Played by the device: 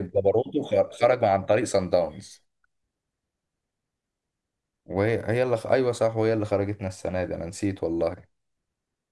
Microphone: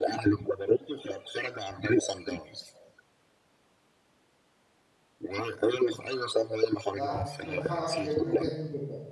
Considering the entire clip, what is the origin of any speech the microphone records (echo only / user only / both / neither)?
both